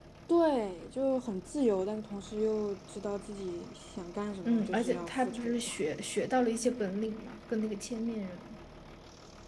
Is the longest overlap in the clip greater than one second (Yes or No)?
Yes